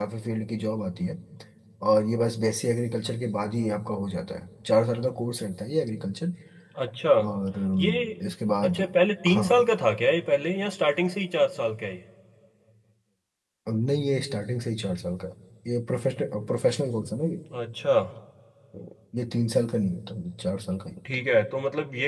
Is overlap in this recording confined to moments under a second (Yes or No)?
Yes